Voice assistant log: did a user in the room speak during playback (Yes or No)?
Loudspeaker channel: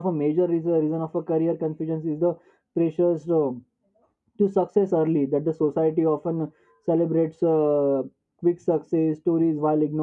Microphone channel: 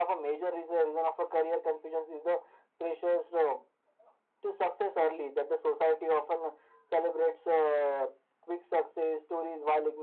No